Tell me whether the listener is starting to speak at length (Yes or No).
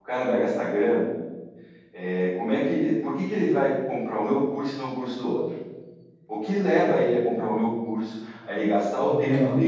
No